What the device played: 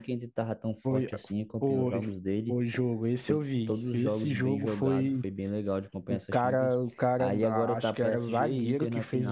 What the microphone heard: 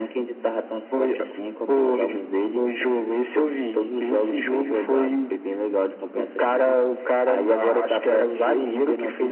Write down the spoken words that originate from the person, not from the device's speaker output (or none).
none